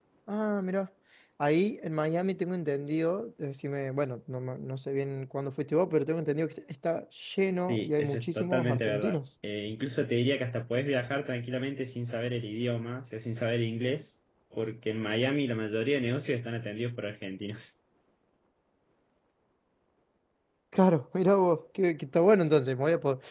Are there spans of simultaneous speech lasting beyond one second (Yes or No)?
Yes